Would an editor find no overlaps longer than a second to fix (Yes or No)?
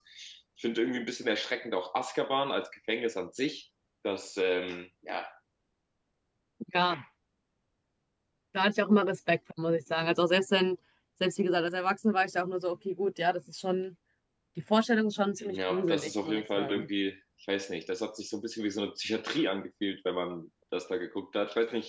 No